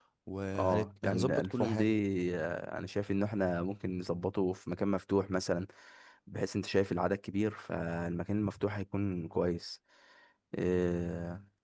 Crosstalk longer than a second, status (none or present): present